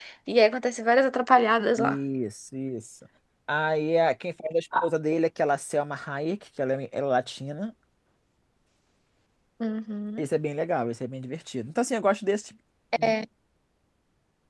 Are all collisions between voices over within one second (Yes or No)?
Yes